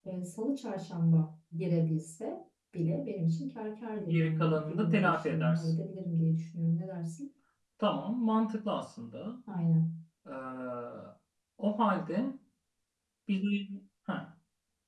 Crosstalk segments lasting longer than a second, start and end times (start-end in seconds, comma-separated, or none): 4.0-5.7